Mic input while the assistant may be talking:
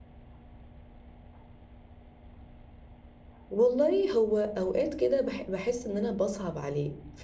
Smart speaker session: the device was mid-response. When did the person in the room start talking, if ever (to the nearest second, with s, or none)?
4 s